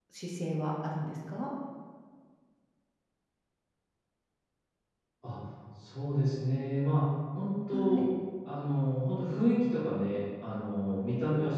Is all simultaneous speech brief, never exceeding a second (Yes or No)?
Yes